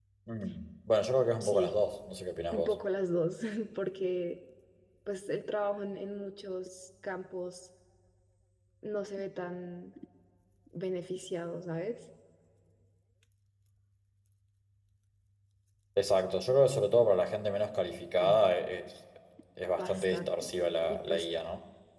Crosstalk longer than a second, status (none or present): present